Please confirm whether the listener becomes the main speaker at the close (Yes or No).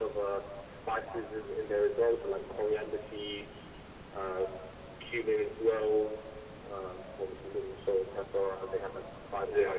No